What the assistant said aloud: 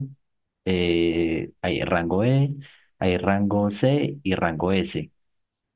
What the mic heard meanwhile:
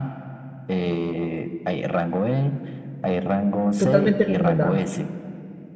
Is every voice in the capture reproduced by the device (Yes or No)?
No